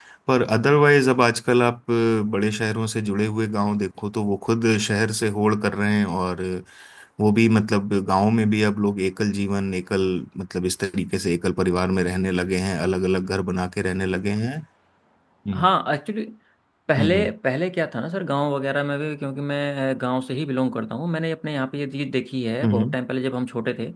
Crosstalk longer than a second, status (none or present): none